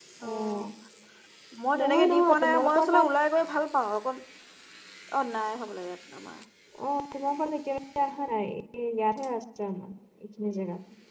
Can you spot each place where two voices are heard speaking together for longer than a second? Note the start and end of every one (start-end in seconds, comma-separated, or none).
1.8-3.0